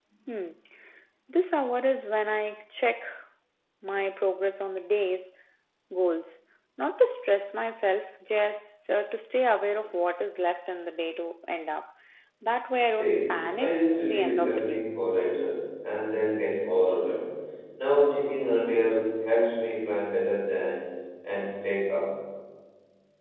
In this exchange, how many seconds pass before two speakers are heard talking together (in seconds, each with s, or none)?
13.0 s